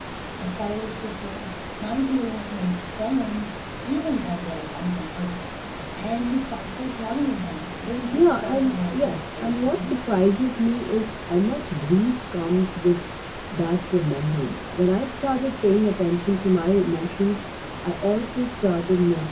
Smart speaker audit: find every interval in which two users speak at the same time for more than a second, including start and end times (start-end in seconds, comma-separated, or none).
8.1-9.9